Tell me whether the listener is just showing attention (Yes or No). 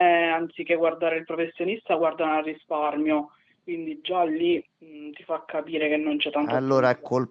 No